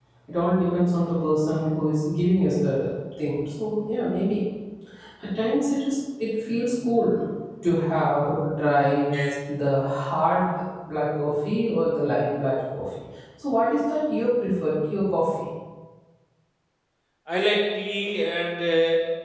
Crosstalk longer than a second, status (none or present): none